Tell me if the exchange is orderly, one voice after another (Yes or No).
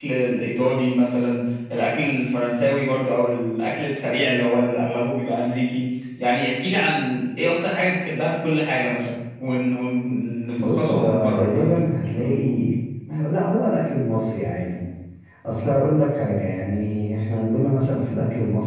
No